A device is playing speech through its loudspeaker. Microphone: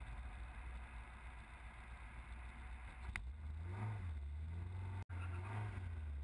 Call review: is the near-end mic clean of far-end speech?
Yes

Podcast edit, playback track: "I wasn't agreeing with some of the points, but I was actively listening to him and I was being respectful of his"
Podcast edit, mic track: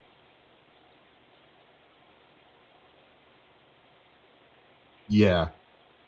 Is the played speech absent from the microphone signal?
Yes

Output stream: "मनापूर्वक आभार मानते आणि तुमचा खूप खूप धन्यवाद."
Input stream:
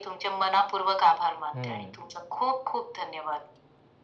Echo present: Yes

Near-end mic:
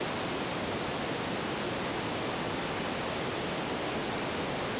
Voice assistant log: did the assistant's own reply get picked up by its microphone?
No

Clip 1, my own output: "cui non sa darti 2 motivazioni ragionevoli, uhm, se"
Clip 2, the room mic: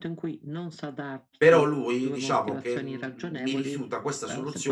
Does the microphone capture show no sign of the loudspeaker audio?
No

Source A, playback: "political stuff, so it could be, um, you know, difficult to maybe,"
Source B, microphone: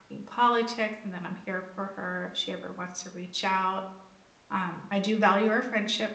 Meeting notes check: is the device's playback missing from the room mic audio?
Yes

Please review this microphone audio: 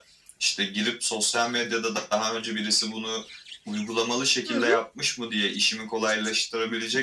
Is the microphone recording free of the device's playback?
No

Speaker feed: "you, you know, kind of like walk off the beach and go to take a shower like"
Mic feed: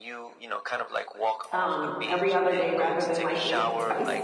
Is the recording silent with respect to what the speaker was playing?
No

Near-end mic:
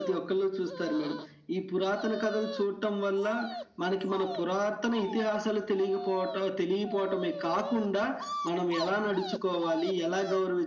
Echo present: Yes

